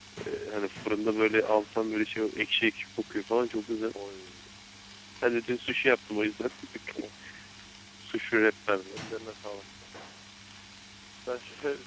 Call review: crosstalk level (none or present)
none